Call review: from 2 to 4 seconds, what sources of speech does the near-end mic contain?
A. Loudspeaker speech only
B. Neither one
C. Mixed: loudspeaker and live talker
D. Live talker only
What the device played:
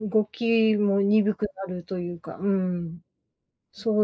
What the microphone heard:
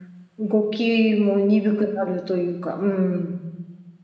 A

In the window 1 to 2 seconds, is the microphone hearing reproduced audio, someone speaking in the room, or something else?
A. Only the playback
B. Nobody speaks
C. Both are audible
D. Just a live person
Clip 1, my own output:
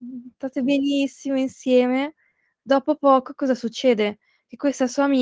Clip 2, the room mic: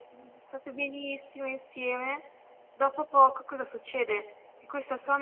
A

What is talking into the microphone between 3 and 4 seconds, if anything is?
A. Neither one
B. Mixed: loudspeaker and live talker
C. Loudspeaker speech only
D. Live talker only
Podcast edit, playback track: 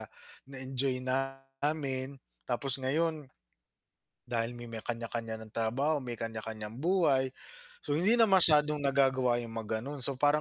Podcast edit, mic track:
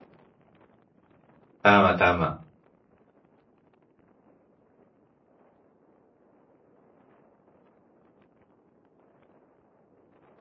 A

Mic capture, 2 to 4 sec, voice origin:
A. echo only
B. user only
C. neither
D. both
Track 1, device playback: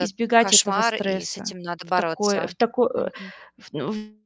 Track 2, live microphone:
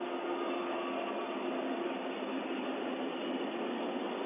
C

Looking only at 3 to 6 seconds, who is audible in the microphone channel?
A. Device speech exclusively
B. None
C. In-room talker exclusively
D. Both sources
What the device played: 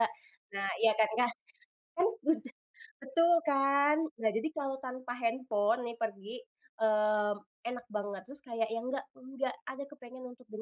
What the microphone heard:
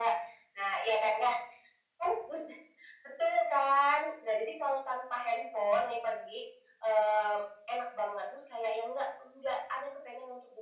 A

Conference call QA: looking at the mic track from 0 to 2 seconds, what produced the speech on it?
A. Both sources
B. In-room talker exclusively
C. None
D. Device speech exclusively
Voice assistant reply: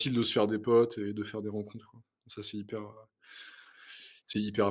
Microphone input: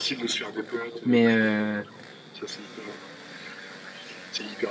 A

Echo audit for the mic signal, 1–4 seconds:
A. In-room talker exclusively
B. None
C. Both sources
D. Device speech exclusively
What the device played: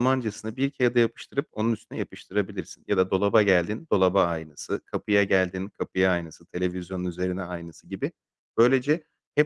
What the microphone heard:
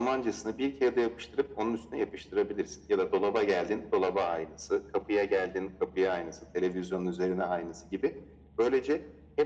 D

